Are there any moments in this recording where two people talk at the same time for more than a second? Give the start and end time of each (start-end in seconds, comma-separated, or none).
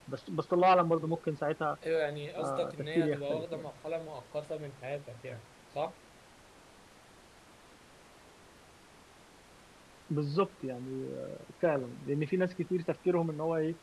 2.4-3.7